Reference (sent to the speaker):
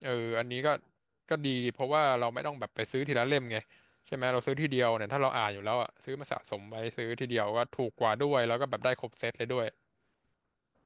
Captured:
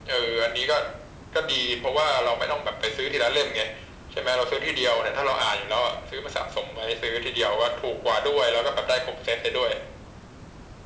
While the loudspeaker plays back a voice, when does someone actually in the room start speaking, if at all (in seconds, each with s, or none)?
none